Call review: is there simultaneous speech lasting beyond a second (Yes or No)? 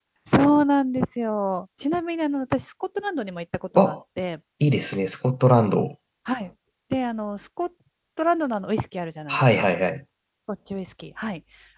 No